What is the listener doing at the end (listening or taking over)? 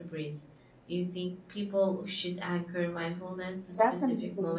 taking over